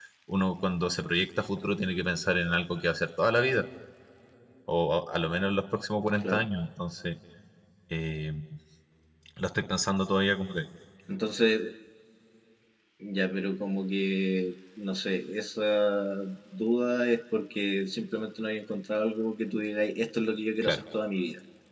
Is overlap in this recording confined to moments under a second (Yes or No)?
Yes